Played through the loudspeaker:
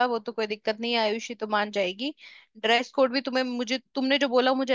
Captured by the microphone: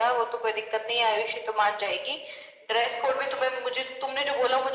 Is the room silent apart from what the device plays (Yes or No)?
Yes